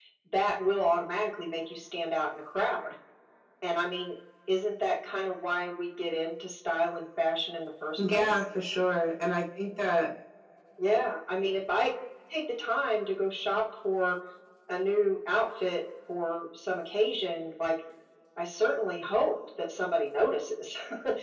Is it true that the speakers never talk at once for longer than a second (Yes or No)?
Yes